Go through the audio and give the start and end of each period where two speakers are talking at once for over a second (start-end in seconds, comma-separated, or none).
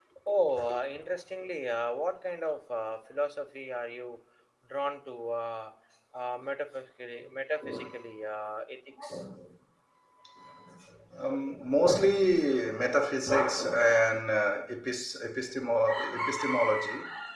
none